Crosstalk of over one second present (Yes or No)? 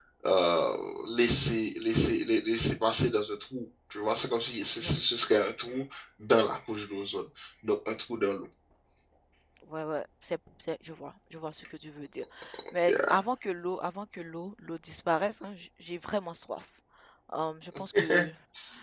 No